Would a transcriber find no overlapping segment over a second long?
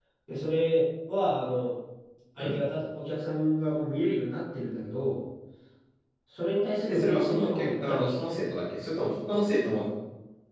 No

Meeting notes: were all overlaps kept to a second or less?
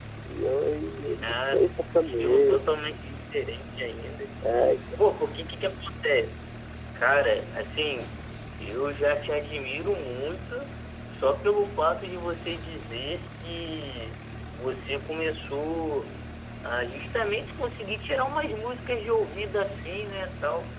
No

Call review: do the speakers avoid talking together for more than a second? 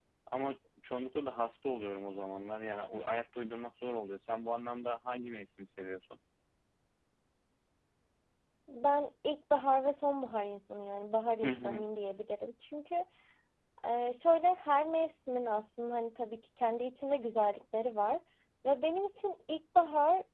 Yes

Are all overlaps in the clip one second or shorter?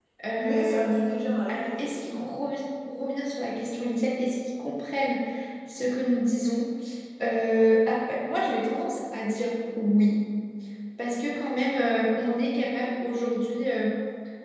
No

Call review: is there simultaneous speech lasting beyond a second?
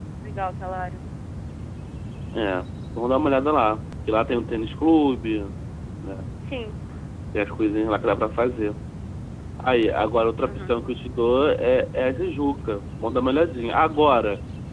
No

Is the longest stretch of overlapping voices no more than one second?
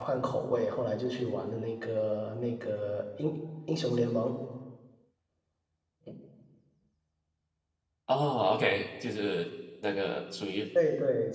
Yes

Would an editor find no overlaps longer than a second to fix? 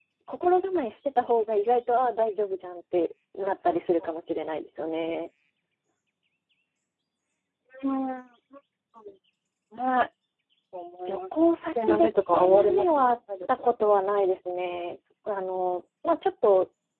No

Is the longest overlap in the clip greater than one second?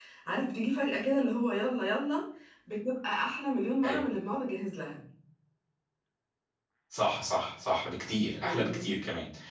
No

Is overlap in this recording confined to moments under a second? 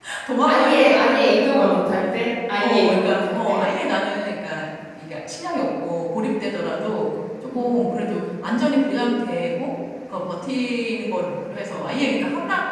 No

